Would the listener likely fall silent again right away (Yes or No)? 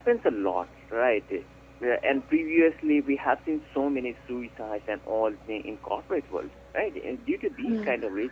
Yes